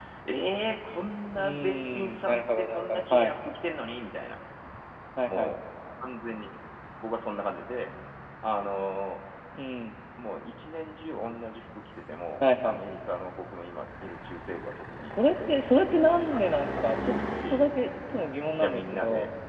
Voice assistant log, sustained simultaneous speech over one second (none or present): present